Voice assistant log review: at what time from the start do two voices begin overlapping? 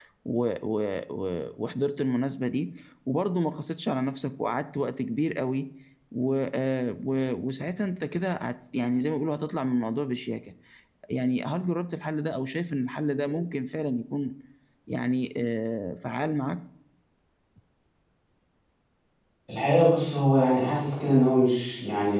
none

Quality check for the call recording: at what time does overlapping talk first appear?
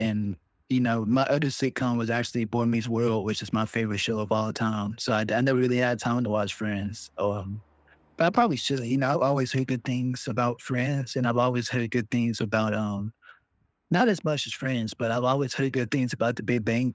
none

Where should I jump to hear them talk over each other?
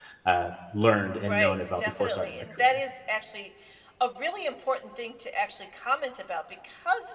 1 s

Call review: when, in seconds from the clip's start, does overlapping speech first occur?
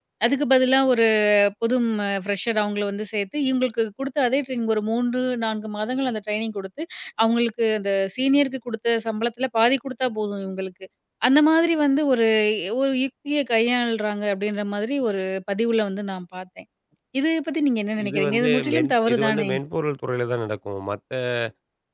18 s

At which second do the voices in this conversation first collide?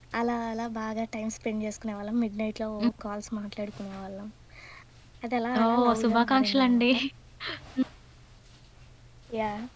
6 s

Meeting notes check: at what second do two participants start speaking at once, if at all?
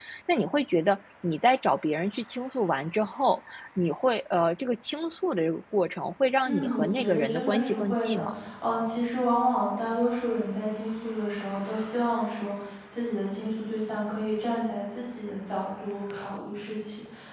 6 s

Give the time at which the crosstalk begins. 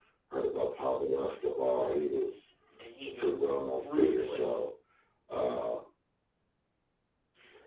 3 s

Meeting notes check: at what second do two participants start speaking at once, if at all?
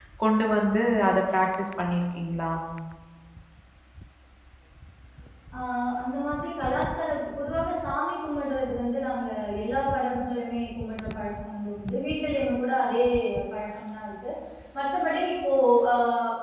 none

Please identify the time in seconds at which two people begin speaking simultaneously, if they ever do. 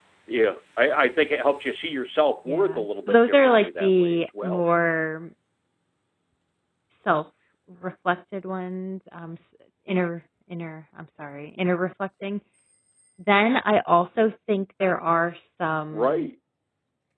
2 s

